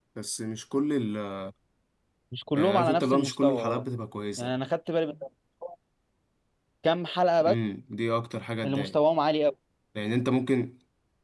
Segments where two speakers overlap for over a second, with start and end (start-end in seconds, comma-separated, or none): 2.5-3.9